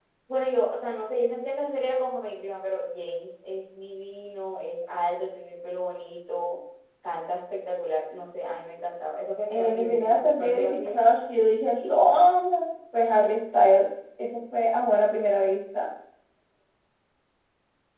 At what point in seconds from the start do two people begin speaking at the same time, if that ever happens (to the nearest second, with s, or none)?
9 s